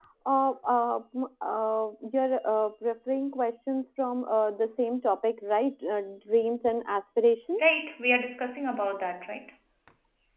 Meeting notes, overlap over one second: none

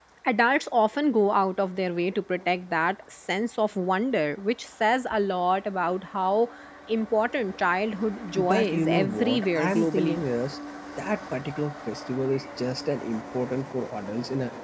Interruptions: present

